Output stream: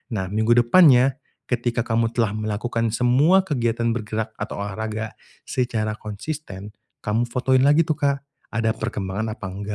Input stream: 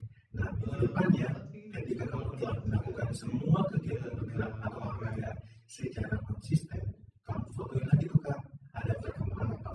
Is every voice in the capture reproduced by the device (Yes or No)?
No